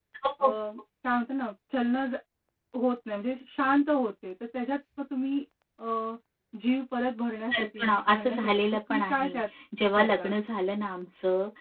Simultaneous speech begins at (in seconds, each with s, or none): 7.5 s